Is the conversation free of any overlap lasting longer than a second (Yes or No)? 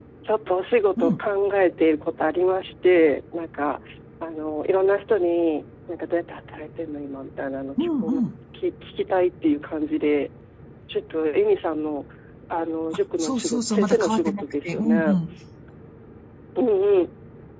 No